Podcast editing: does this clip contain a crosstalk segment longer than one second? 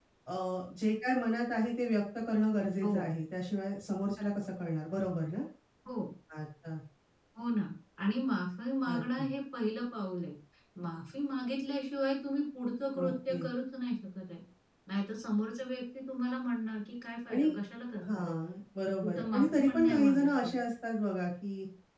Yes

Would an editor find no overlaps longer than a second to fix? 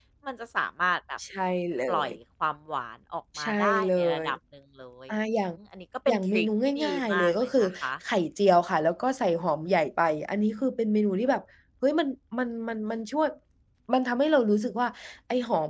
No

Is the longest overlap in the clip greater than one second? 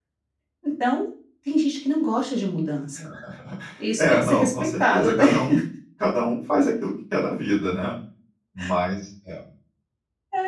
Yes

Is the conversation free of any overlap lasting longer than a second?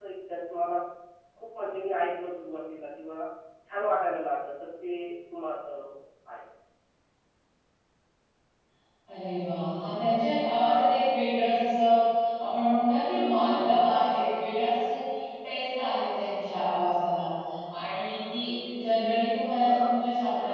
Yes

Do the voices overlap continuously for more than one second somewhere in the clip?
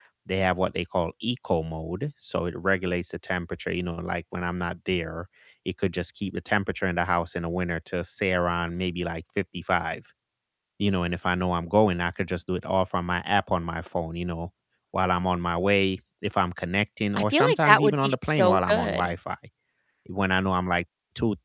Yes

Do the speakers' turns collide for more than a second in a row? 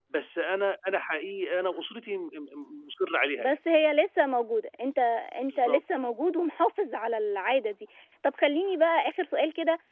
No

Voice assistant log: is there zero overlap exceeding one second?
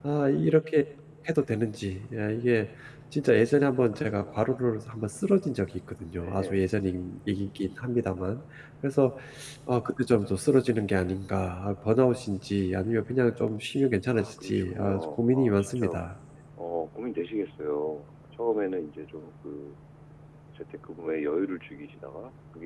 No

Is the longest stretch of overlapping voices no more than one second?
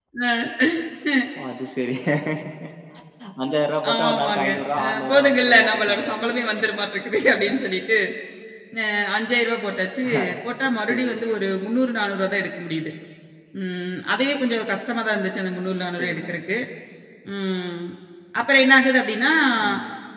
No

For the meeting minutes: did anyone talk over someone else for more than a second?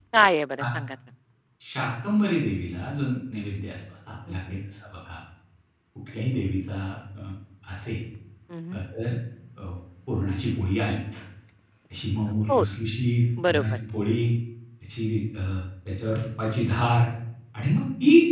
No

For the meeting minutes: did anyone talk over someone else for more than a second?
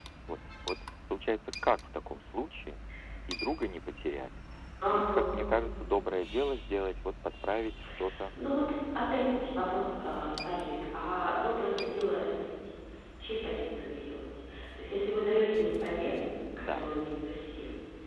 No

